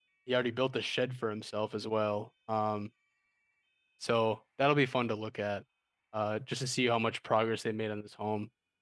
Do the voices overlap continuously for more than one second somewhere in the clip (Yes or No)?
No